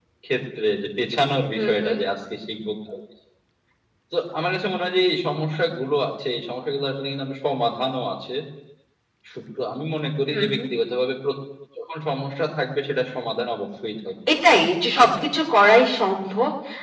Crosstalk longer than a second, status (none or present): none